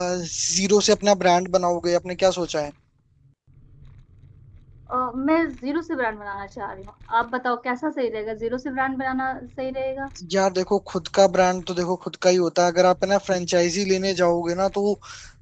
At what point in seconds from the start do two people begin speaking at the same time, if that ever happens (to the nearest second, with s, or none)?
none